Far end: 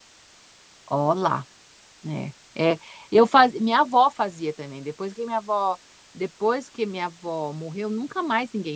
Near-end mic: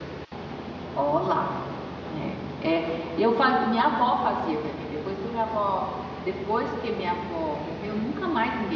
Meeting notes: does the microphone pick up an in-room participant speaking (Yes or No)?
No